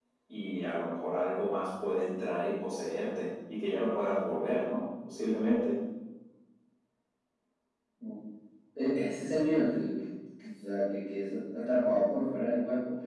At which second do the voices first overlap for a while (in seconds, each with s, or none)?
none